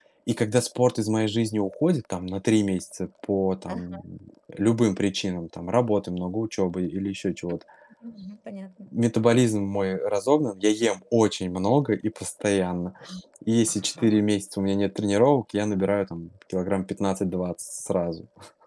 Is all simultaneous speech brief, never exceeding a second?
Yes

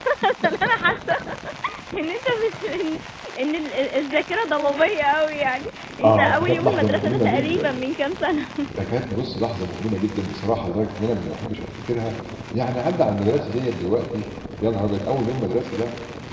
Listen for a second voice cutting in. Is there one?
Yes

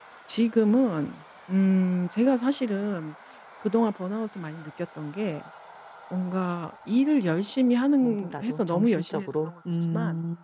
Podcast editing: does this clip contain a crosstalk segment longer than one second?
Yes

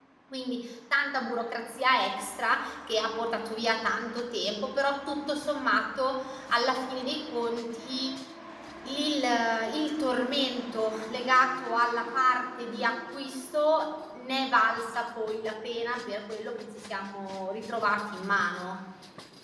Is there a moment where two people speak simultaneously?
No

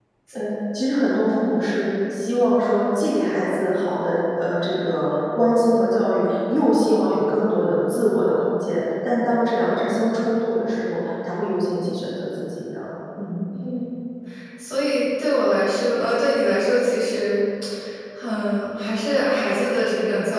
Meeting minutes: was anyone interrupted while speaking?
No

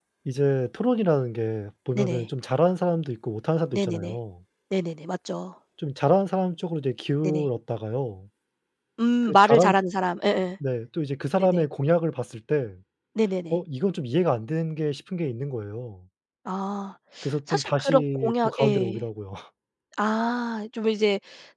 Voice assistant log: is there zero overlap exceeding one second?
No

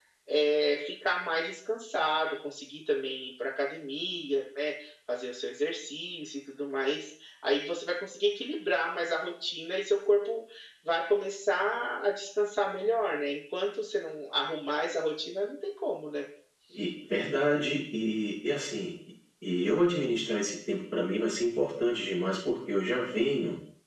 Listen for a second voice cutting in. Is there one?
No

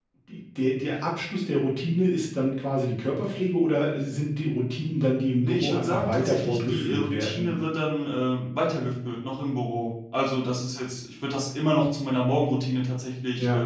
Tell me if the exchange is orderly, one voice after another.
No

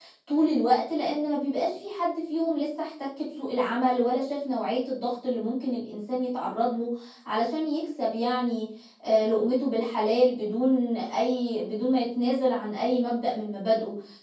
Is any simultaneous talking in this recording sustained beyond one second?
No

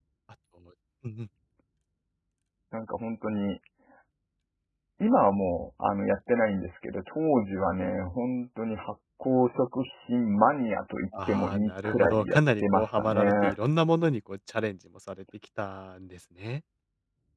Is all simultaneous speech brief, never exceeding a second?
No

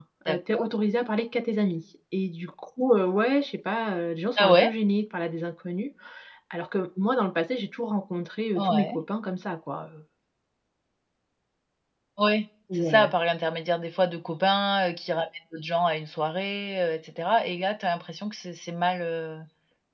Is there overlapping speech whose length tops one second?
No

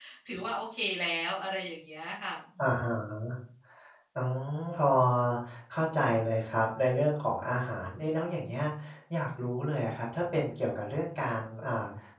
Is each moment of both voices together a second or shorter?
Yes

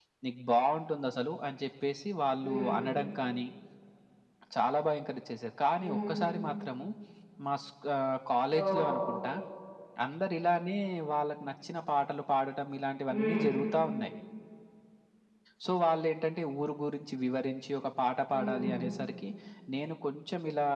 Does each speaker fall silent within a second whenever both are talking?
Yes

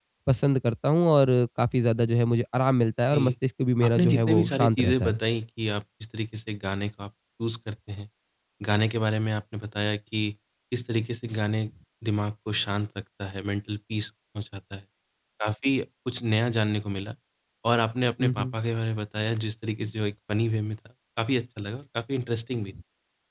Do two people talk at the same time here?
Yes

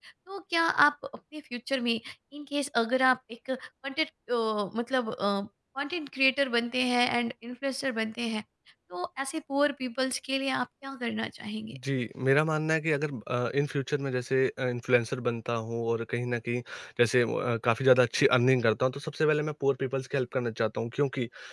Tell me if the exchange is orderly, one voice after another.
Yes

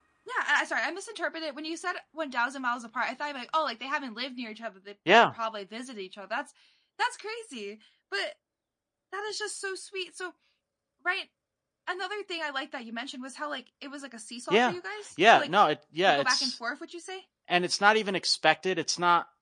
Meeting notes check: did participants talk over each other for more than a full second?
No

